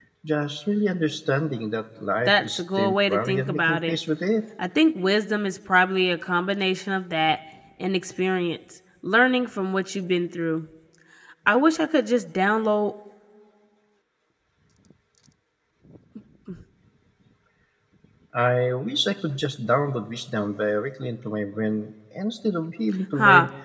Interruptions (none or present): present